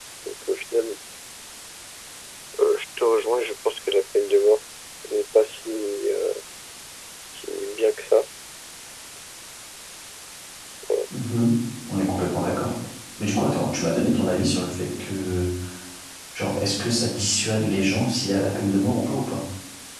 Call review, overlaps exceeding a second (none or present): none